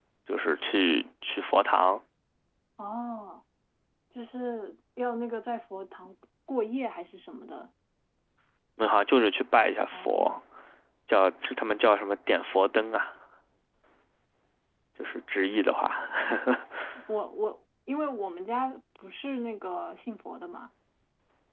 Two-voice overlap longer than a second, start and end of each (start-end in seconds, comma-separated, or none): none